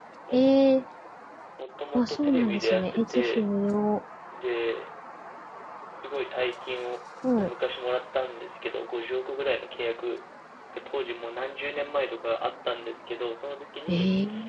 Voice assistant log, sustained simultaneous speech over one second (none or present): present